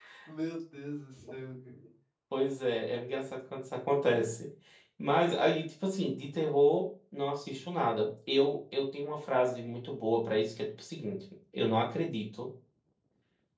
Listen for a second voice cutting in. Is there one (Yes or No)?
No